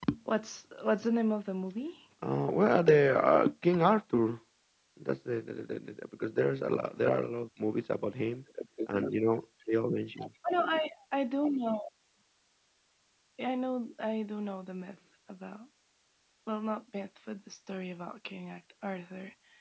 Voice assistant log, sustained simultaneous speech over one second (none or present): none